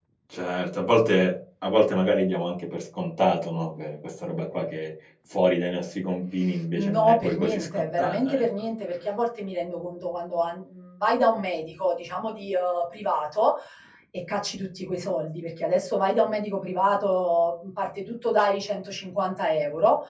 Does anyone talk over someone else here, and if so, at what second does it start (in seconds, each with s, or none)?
6.7 s